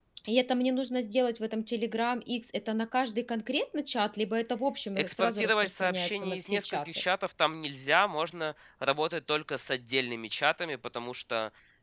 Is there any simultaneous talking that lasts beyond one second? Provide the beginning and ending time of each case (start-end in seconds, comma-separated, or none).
5.0-6.9